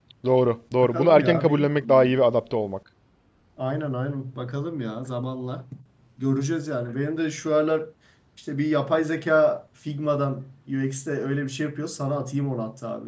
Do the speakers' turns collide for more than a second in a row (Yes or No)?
Yes